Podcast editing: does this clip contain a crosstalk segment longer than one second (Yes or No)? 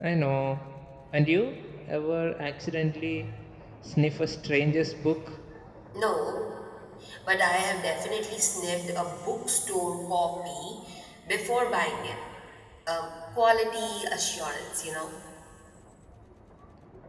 No